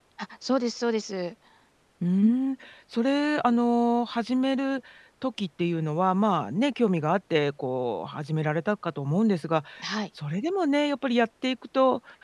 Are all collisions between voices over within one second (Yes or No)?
Yes